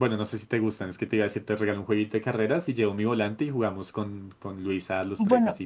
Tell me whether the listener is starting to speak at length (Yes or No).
Yes